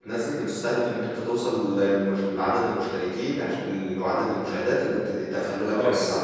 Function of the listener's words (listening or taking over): taking over